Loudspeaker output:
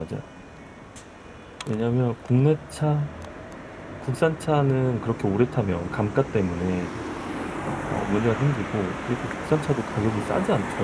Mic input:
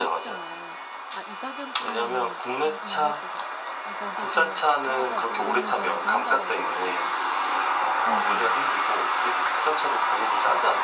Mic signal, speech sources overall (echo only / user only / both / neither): both